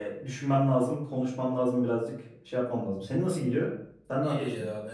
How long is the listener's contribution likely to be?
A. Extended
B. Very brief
A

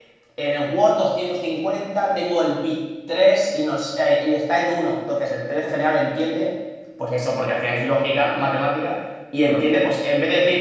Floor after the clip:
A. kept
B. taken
A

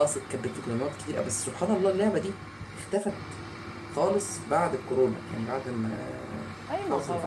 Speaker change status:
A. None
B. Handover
B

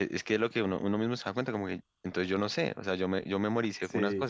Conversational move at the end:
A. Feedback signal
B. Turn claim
B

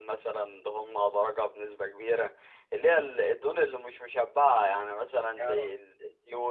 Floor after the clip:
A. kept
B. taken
A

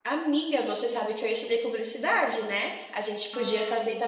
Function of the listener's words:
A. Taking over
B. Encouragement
B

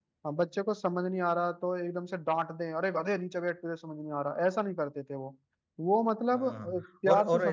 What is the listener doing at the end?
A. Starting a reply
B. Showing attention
A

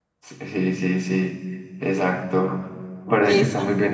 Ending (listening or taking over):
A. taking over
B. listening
B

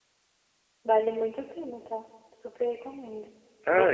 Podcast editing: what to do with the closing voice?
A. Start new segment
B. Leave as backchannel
A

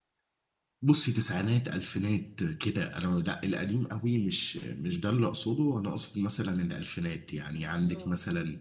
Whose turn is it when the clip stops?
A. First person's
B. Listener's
A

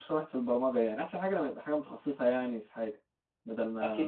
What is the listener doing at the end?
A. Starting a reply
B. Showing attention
A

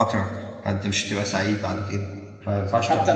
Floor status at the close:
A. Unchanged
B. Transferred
B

